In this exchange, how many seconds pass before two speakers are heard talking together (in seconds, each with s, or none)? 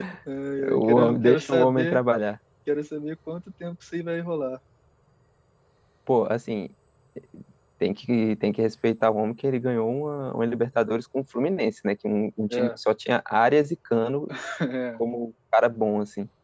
0.7 s